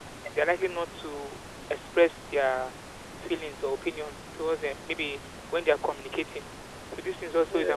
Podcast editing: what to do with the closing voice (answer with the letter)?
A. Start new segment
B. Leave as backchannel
B